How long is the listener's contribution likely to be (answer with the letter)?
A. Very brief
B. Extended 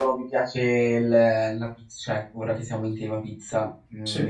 A